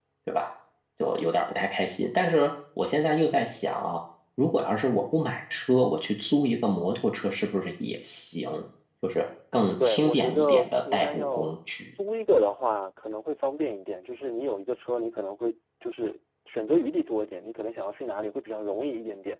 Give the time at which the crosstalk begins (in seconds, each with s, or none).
9.8 s